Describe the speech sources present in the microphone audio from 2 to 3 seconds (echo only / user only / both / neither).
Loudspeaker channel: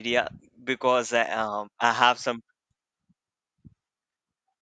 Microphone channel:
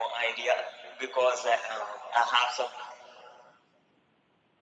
echo only